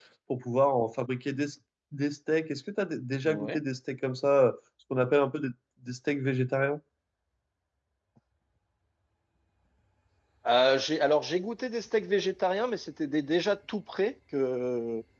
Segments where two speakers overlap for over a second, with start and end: none

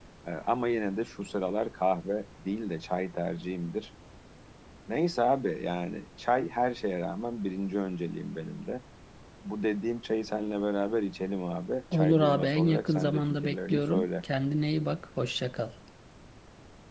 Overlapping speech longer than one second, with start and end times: 11.9-14.1

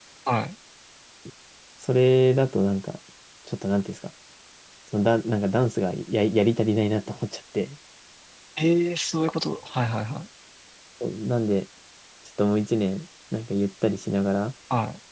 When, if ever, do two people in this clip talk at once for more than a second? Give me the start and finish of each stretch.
none

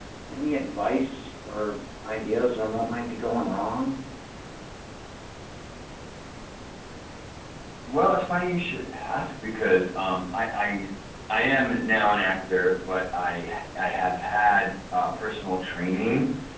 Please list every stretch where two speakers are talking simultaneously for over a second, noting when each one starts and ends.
none

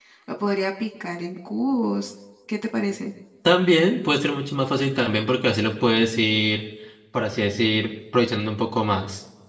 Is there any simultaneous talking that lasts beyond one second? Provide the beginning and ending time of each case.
none

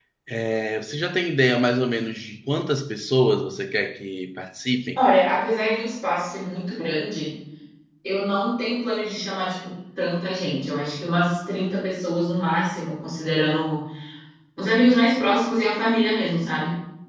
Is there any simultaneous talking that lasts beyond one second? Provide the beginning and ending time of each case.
none

